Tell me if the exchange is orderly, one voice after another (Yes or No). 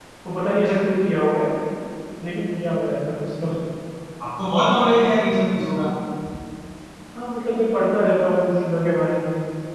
Yes